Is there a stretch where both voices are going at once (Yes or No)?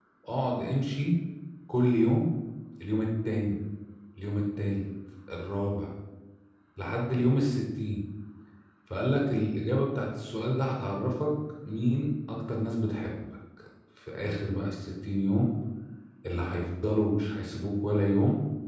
No